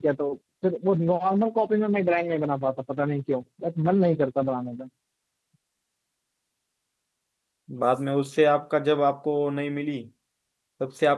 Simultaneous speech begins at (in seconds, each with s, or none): none